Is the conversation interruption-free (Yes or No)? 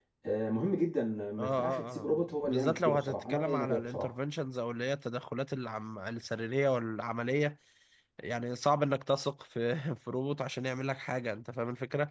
No